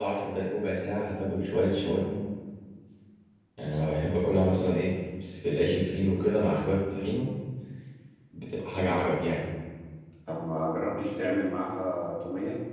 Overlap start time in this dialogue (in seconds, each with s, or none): none